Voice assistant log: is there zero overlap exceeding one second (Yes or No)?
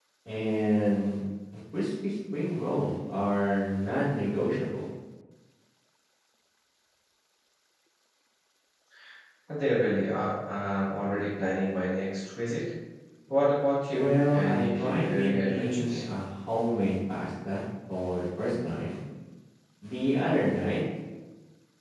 No